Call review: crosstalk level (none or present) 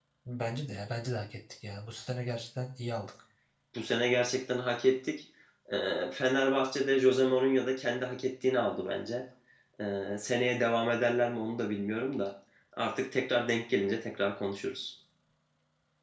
none